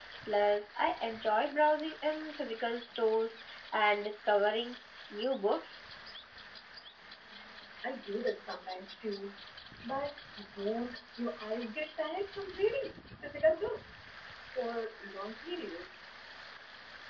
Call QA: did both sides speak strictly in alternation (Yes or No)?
Yes